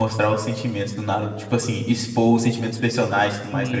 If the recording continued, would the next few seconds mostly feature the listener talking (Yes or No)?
Yes